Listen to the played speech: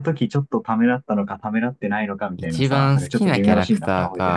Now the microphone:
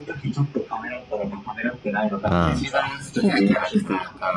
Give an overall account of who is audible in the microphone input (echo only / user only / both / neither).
both